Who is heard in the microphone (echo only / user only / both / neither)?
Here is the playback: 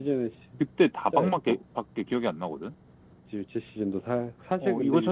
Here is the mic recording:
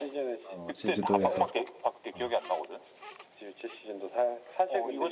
both